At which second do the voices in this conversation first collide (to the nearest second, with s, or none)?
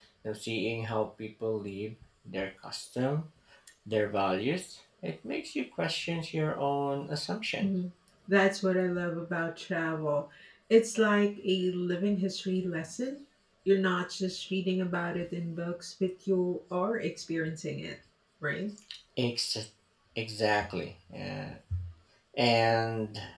none